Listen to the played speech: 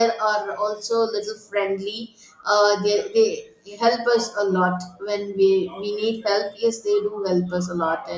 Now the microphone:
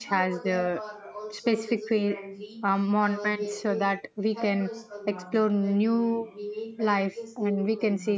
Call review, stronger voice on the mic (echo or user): user